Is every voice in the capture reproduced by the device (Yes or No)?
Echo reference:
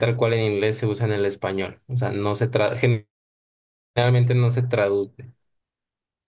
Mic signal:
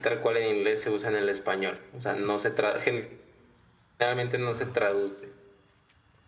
Yes